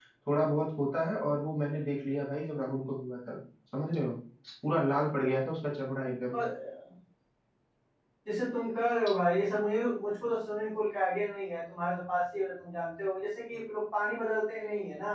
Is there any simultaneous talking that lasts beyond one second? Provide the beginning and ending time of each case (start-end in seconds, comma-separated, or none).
none